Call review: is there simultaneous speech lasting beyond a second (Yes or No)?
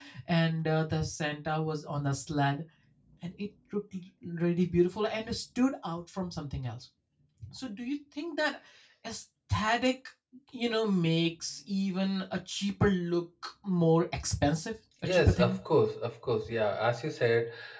No